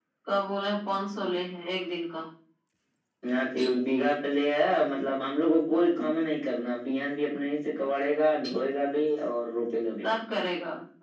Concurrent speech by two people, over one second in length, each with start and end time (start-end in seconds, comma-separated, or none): none